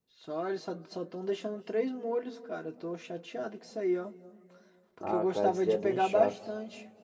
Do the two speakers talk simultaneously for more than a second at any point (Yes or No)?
Yes